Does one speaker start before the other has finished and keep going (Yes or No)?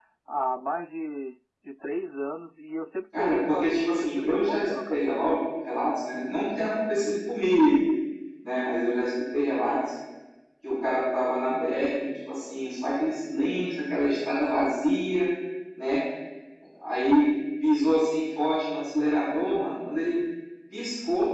Yes